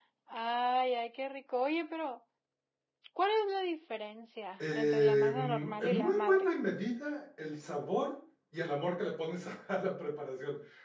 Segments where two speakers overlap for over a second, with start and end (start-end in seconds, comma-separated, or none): 4.7-6.5